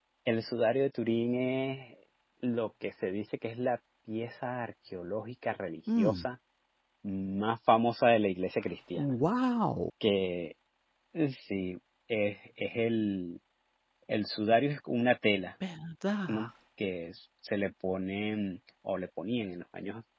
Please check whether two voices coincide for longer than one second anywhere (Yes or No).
No